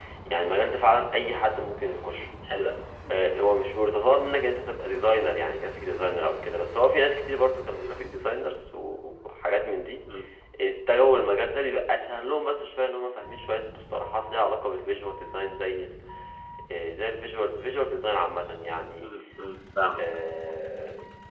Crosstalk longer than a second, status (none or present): none